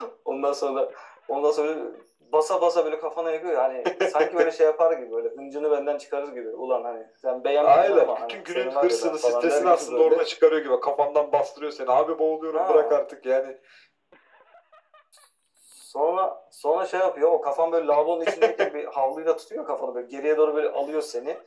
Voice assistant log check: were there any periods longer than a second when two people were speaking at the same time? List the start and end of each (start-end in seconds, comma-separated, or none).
7.6-10.2